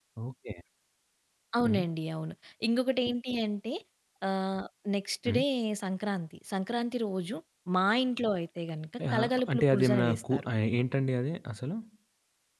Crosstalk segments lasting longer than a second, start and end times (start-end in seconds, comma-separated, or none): 9.1-10.5